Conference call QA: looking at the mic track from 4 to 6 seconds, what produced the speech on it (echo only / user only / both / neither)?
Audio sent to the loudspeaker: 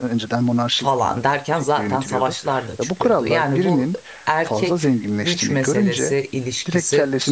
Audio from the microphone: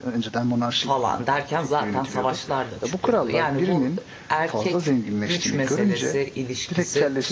echo only